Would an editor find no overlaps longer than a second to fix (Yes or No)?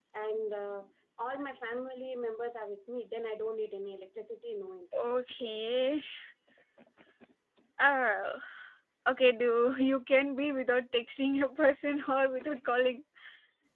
Yes